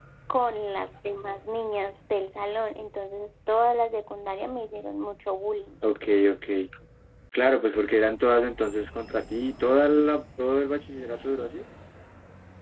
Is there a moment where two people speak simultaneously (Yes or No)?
No